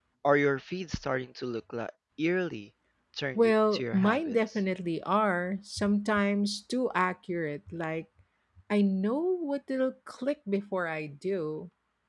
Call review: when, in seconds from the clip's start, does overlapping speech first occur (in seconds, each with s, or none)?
3.4 s